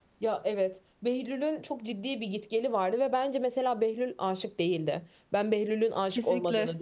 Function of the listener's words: listening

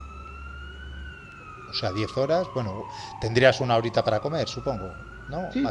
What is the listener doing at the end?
taking over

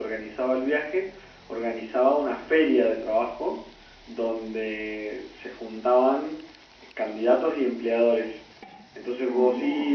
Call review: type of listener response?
listening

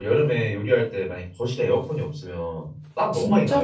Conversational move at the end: taking over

